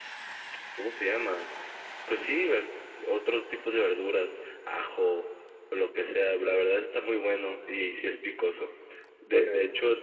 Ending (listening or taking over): listening